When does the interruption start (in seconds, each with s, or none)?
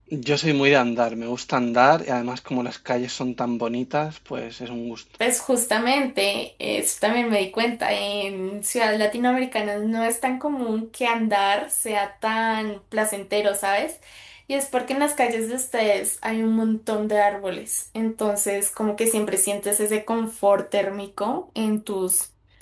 none